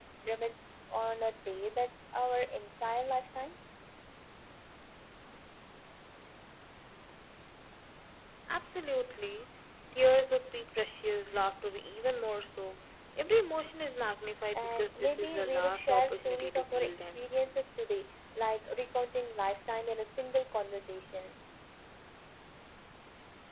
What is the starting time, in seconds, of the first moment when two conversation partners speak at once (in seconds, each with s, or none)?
14.6 s